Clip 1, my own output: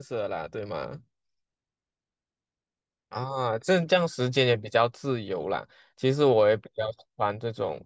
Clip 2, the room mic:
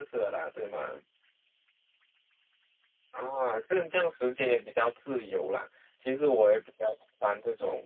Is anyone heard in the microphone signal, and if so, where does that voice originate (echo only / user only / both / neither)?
echo only